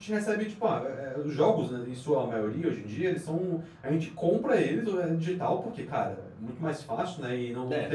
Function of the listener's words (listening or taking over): taking over